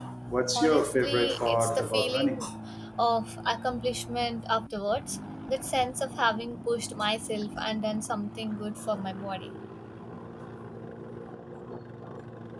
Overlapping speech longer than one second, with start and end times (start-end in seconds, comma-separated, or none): 0.6-2.4